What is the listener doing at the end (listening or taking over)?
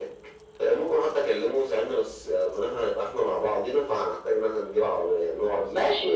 taking over